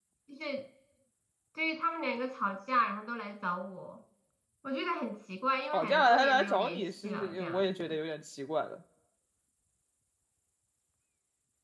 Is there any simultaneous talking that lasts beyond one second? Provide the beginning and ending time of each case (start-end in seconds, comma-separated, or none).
5.7-8.0